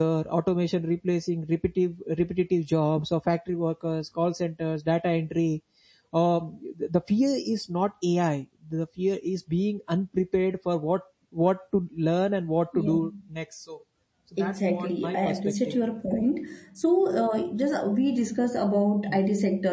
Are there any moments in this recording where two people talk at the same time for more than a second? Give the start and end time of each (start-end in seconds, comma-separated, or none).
14.4-15.8